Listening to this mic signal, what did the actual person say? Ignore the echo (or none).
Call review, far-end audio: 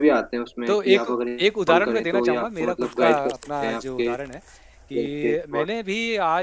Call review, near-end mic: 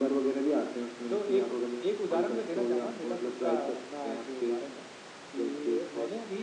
none